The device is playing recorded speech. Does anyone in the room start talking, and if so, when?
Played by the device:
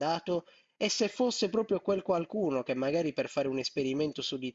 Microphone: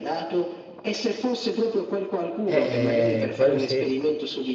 3 s

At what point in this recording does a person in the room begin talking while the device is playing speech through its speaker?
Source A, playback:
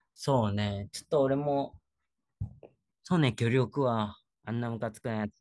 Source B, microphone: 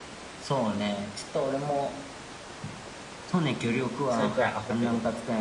4 s

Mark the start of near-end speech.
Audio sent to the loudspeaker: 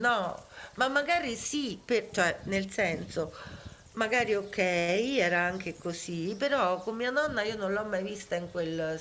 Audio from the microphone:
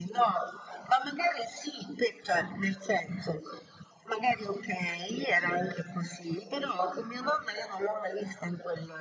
none

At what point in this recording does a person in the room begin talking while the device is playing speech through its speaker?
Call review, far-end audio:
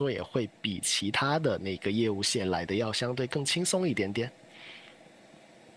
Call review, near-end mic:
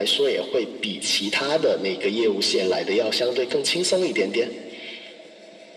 none

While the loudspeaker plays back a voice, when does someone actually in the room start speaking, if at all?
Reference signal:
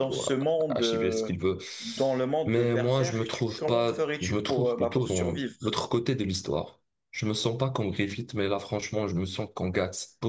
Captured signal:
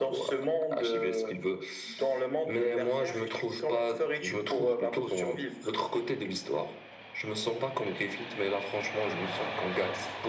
none

